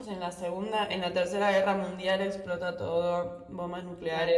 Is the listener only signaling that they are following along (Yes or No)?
No